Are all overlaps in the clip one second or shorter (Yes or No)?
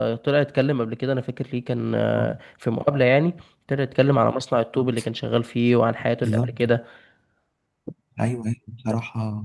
Yes